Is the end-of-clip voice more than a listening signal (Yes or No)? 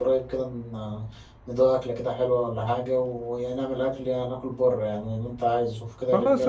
Yes